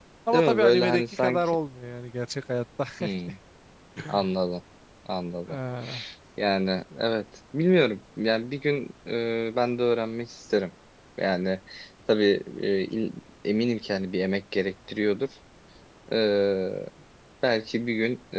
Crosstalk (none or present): present